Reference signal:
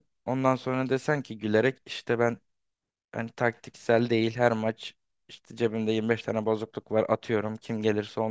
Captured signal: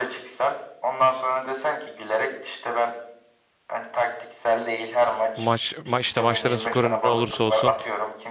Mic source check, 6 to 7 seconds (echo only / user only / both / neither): both